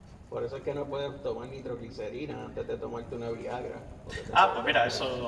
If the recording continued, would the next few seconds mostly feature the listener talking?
Yes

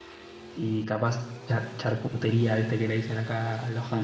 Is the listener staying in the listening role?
Yes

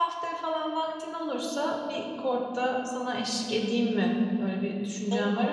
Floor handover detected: Yes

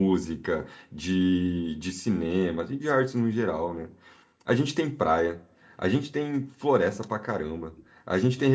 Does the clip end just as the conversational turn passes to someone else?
No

